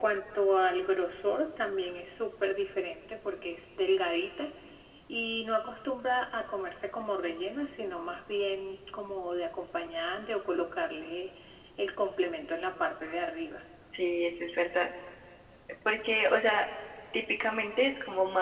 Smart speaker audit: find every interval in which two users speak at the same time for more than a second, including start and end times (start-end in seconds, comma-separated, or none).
none